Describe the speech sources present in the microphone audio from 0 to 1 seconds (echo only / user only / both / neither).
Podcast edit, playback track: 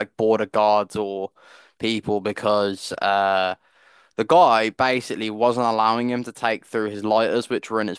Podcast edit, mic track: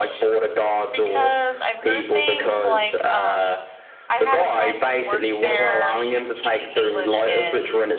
both